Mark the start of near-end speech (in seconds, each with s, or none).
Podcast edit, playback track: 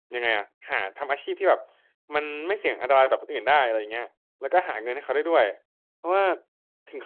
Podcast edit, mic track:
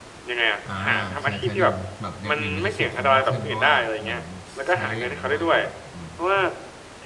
0.7 s